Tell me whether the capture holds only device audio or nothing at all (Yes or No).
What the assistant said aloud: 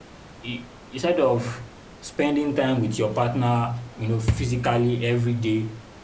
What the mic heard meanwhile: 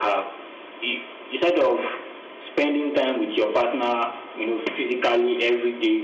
Yes